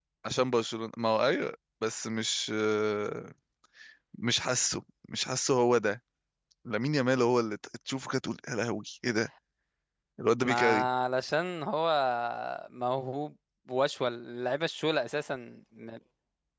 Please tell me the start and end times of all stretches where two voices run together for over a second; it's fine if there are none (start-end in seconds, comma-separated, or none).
none